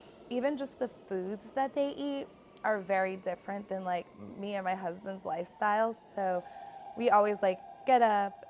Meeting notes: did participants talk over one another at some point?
No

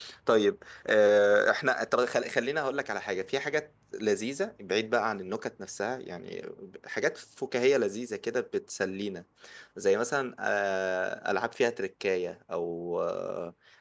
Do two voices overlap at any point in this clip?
No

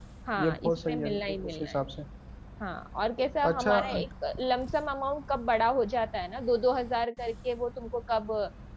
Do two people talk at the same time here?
Yes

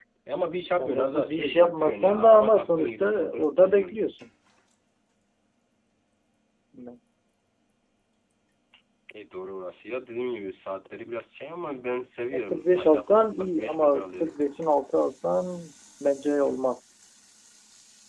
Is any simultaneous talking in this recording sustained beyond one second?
Yes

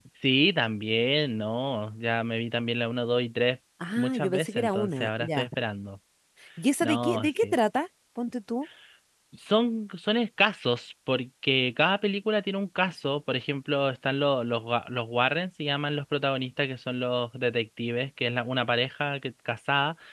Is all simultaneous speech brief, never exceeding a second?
No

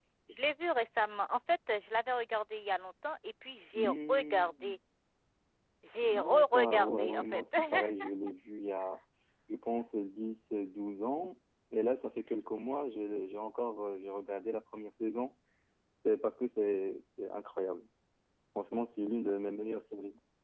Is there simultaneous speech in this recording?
Yes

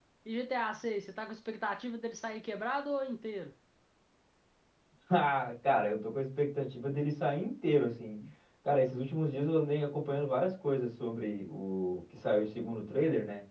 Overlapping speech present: No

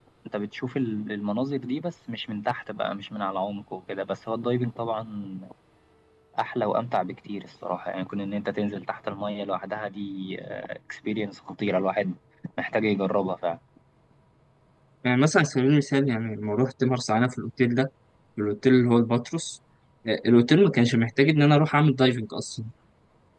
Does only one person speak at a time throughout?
Yes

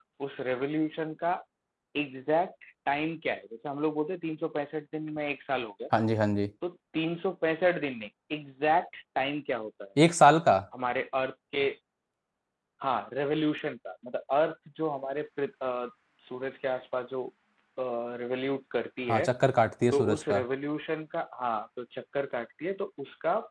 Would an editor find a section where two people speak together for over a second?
No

